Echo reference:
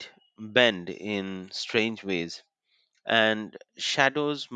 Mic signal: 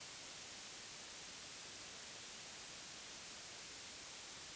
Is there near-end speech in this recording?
No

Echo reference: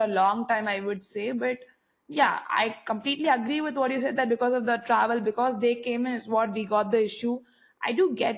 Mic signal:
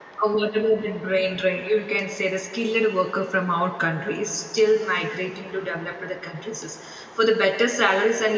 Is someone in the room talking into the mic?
Yes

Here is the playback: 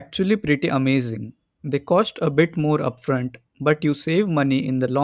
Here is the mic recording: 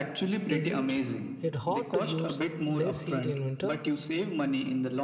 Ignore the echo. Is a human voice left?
Yes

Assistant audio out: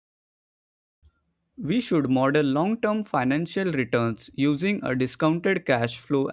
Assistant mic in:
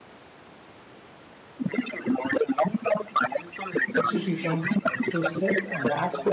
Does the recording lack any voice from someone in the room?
No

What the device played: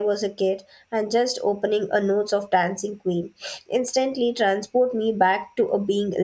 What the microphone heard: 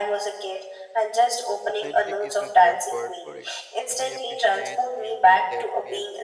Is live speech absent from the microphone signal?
No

